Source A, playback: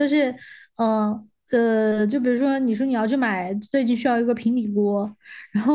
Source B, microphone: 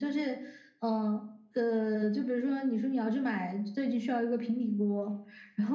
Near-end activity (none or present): none